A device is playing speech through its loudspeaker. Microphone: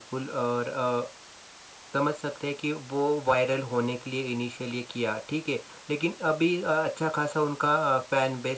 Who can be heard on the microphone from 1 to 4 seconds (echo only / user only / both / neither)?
echo only